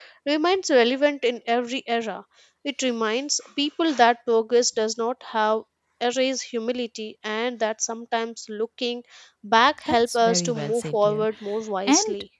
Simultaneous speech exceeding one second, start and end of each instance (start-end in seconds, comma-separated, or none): 9.9-11.2